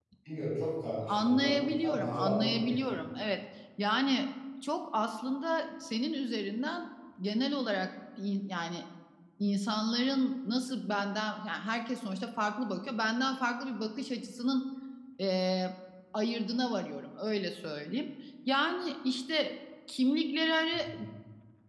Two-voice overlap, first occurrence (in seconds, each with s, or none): 1.1 s